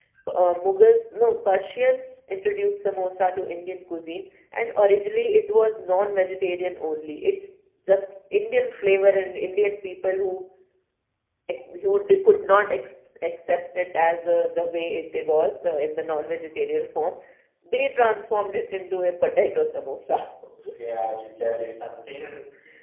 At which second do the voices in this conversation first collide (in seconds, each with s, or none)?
none